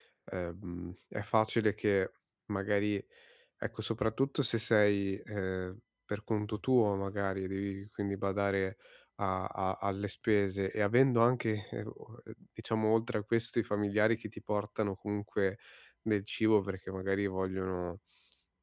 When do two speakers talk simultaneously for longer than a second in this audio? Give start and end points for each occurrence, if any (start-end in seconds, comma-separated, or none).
none